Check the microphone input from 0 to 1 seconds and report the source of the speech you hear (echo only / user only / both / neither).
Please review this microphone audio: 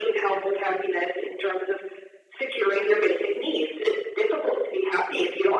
echo only